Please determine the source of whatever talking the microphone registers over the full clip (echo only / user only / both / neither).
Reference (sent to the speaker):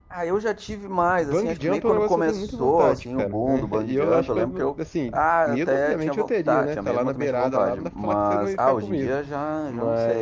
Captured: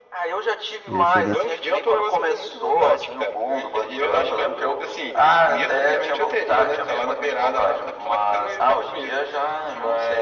both